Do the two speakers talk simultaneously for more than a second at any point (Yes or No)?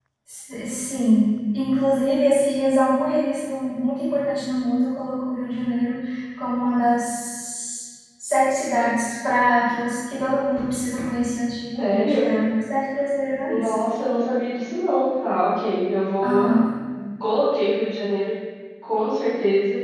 No